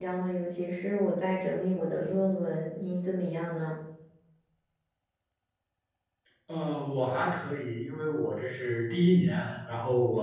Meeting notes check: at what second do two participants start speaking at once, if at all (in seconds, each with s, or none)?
none